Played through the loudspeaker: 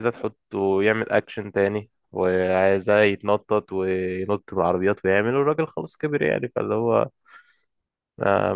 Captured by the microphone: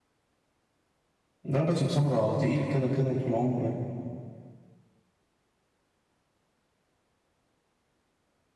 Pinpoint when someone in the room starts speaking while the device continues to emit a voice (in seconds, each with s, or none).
1.4 s